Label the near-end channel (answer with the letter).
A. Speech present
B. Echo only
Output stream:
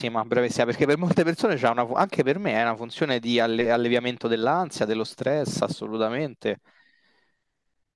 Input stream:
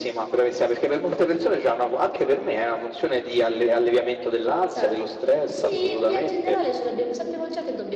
A